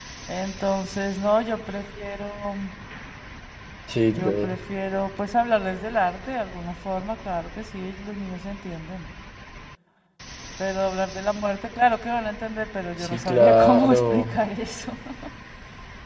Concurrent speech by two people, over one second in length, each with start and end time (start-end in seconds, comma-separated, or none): 13.0-14.3